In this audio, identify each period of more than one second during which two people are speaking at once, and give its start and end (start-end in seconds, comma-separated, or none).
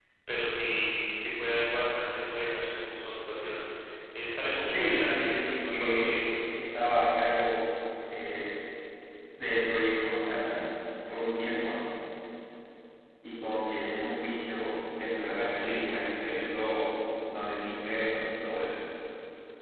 4.7-6.2